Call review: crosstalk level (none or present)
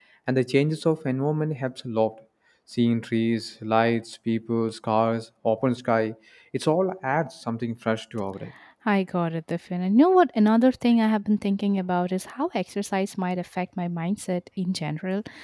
none